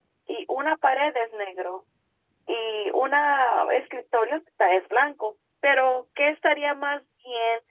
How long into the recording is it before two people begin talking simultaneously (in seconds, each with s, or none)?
none